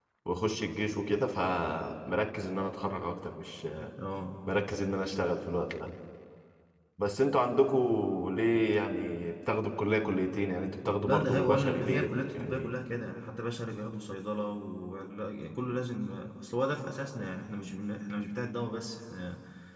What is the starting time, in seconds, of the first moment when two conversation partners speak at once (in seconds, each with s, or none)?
10.9 s